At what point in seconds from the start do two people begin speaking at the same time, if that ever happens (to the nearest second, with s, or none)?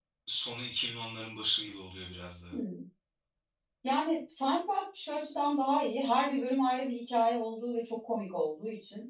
none